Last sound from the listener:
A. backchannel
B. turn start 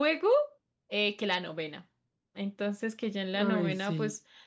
A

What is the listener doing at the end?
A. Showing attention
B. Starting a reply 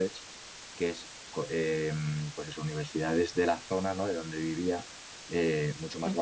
A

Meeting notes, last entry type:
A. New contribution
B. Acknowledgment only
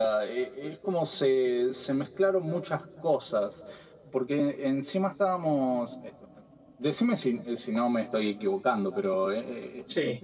B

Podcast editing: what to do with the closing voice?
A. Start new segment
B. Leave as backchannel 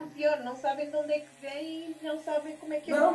A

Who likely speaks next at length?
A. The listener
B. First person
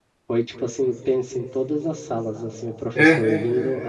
B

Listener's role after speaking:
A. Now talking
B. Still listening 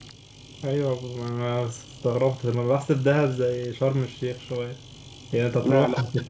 B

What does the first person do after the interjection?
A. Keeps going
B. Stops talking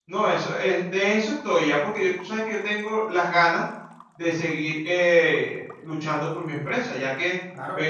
A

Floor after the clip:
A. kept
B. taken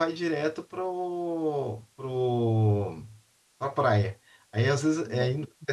A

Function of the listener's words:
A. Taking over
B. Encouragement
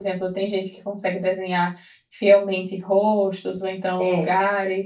B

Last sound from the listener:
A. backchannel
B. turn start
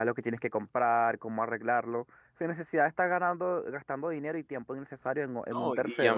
B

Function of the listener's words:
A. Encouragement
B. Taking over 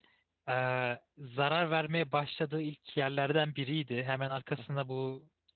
A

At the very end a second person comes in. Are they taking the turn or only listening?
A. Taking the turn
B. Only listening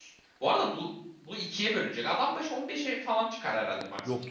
A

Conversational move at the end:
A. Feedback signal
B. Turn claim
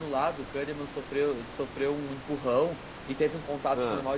A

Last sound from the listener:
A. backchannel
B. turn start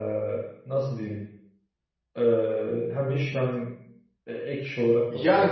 B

